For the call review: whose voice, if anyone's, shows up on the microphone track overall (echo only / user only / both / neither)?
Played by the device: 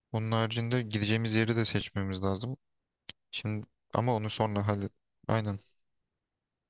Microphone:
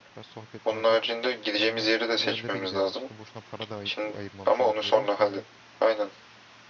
both